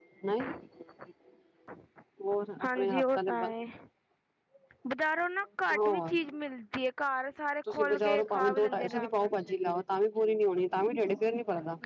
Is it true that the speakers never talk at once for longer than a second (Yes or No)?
No